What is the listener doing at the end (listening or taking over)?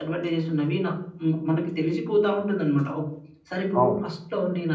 listening